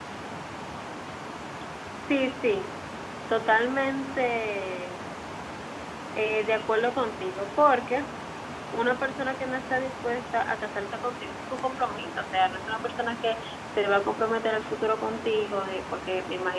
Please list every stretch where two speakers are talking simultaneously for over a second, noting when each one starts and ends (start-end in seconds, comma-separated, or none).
none